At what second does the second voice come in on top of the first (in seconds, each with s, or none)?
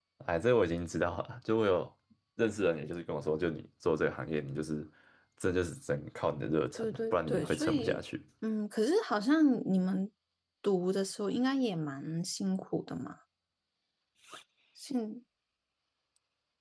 6.8 s